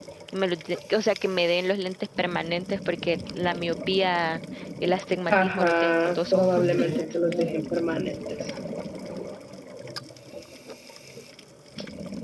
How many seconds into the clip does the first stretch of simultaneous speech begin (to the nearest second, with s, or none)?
5 s